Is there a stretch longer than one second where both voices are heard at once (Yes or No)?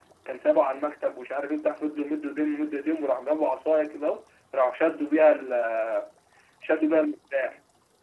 No